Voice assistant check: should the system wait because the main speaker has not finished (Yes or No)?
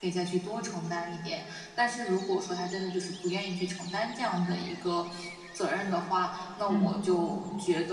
Yes